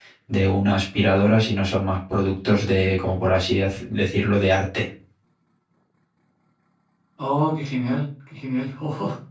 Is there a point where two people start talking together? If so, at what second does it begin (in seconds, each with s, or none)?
none